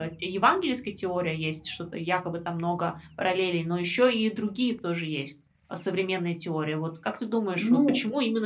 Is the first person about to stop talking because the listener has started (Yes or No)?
No